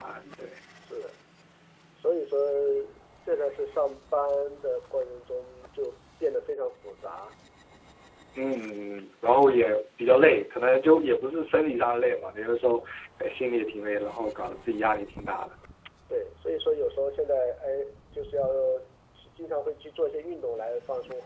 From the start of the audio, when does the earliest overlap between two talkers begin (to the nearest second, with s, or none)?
none